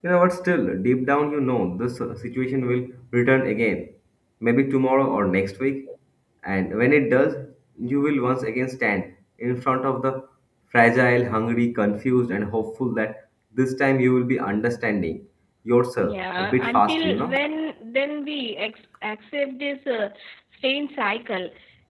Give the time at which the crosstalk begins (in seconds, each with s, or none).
16.0 s